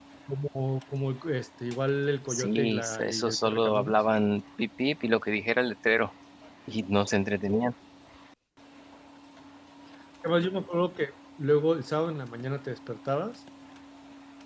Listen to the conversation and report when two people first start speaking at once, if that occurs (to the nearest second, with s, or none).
2 s